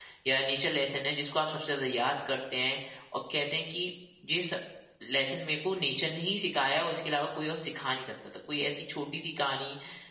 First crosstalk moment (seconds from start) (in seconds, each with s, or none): none